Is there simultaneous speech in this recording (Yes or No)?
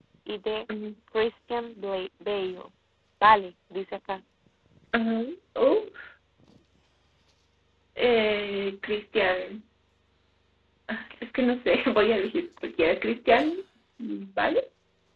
No